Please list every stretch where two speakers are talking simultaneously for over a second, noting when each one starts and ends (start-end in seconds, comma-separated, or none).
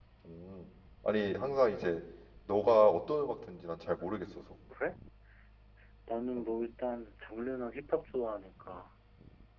none